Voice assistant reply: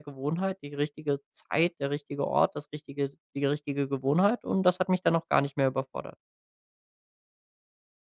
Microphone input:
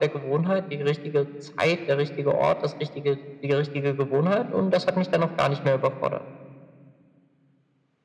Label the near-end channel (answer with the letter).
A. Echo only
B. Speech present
A